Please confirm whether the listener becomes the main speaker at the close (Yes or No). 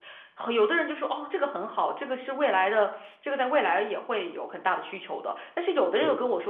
No